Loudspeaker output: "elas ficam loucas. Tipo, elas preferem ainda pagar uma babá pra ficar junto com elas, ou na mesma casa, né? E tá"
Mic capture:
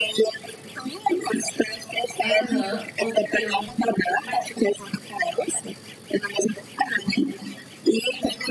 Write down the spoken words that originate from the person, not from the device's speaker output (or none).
Aham, com certeza. Mas